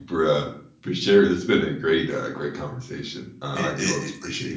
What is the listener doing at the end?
taking over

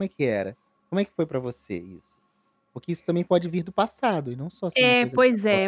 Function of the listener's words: taking over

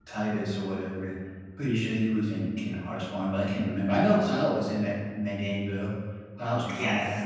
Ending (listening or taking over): taking over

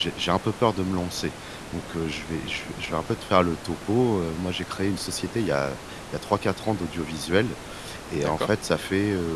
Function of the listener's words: listening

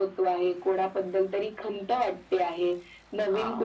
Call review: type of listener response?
listening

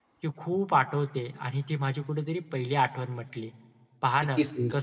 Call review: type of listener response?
listening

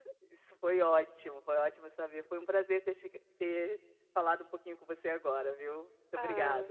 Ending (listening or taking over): taking over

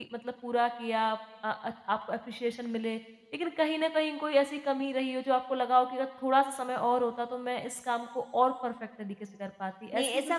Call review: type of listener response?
taking over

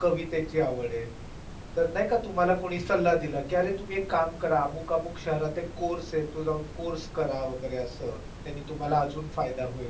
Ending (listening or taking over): listening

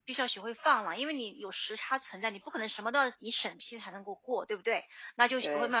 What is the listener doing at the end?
listening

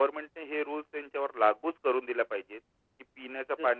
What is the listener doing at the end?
listening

